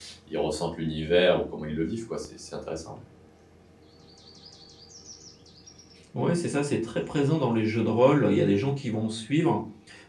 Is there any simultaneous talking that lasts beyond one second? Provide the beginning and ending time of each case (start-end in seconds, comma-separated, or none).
none